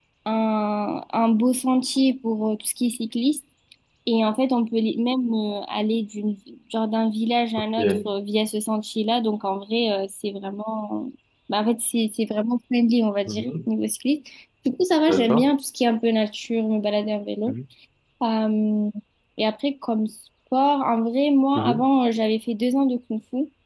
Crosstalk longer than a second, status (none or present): none